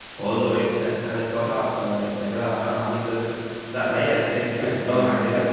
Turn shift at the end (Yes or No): Yes